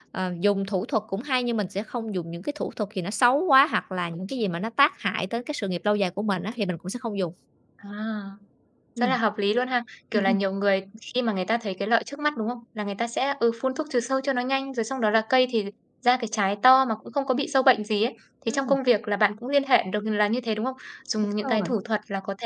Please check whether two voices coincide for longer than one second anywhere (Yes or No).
No